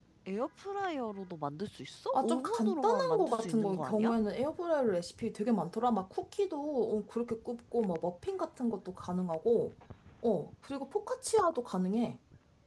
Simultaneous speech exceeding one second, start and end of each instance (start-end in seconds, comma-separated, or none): 2.1-4.1